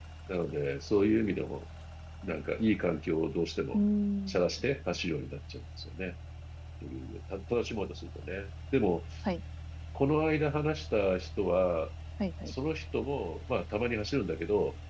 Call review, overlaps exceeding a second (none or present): none